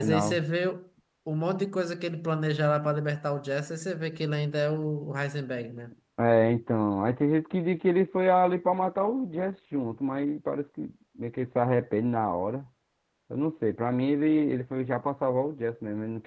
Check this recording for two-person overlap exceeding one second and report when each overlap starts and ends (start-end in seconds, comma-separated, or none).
none